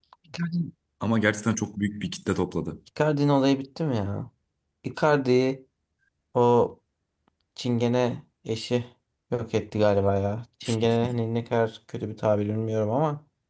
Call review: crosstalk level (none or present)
none